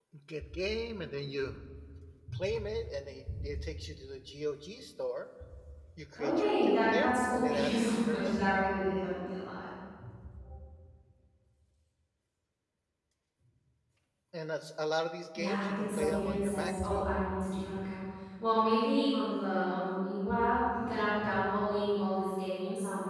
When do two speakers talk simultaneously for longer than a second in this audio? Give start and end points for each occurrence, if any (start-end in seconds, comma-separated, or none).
6.2-8.4, 15.4-17.1